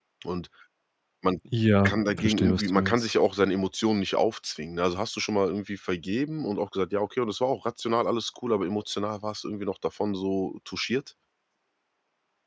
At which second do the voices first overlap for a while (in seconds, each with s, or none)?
1.8 s